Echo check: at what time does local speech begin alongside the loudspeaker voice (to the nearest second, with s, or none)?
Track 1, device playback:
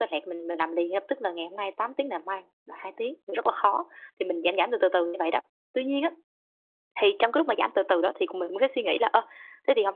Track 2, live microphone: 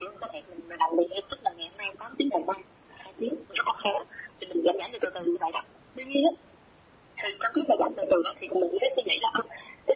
none